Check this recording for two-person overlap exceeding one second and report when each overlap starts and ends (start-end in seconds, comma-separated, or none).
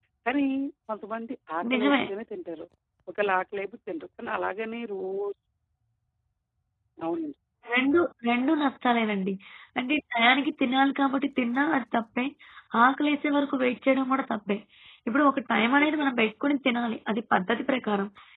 none